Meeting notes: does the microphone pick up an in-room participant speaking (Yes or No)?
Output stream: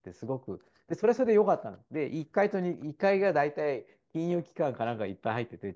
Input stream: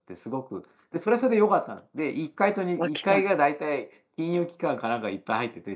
Yes